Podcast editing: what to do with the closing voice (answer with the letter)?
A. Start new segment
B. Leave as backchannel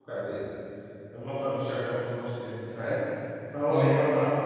B